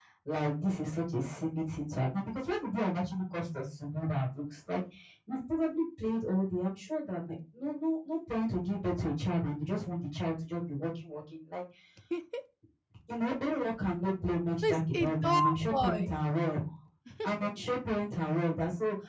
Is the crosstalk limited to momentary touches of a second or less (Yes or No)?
No